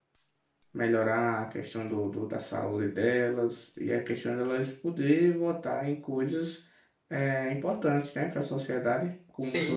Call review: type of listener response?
taking over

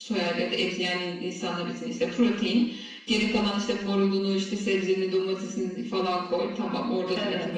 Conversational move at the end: listening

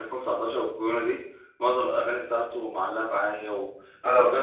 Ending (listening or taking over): listening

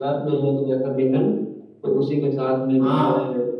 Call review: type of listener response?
listening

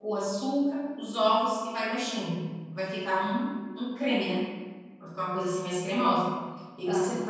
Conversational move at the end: listening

